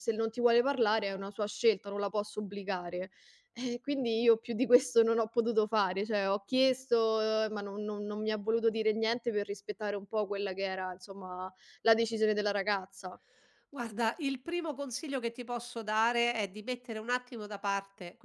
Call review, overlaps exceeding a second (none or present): none